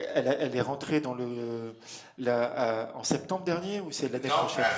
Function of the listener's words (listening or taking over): taking over